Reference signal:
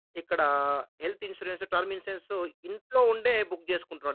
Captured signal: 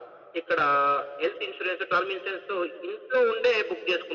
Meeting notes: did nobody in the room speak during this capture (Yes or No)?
Yes